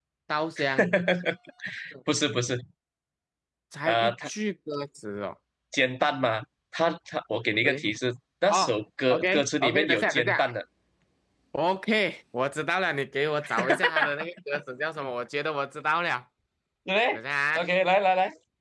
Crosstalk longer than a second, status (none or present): present